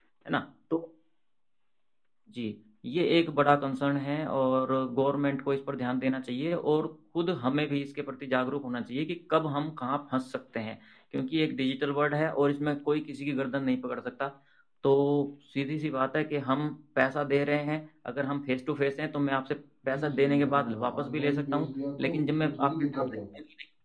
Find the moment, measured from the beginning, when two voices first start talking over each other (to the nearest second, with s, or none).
20 s